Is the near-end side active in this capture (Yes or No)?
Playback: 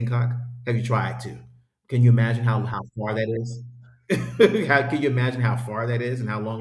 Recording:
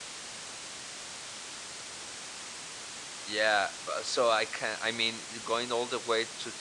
Yes